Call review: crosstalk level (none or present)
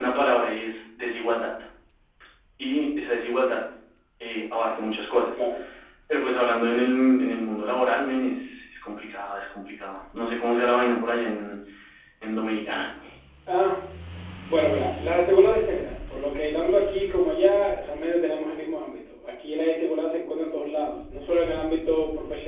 none